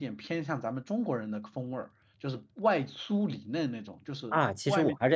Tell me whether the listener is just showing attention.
No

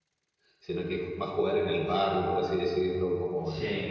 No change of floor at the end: Yes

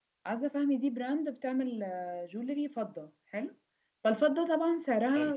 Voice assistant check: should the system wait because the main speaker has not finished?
Yes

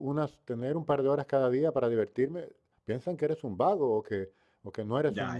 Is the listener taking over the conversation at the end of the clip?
No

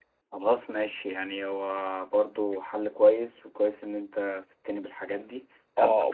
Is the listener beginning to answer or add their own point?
Yes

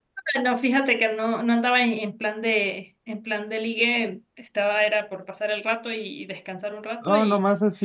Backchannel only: No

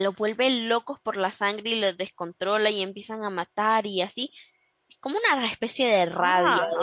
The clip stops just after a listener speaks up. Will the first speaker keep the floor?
No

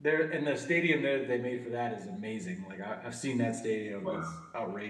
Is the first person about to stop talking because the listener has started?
No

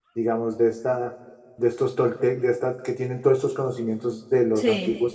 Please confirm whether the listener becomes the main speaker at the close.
No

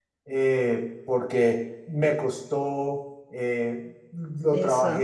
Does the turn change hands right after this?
No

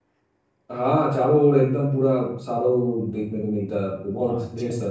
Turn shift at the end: Yes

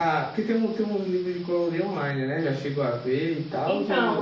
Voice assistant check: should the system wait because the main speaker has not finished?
No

